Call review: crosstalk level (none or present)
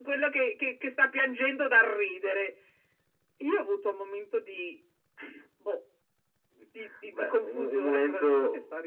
present